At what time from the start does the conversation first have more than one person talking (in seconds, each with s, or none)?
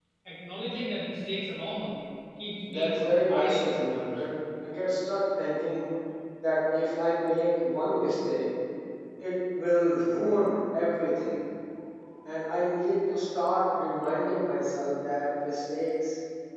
2.6 s